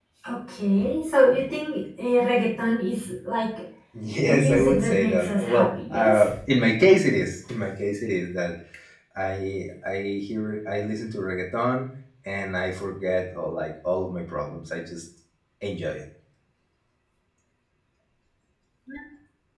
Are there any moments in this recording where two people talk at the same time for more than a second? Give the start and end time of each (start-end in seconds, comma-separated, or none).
4.2-6.3